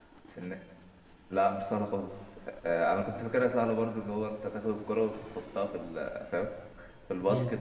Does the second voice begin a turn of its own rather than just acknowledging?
No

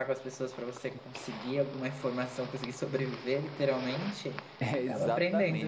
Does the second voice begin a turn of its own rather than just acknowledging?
Yes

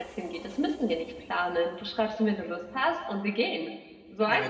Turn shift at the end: Yes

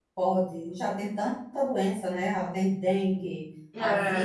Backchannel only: Yes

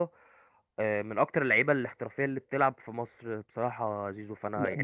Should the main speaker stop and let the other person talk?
Yes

